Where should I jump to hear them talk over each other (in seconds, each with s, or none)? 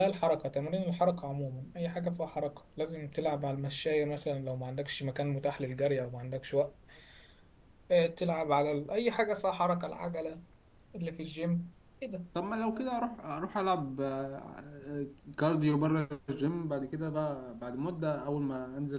none